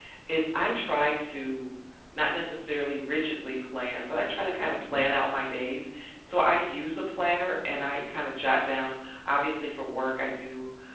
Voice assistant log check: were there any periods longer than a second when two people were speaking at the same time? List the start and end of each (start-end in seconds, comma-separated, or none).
none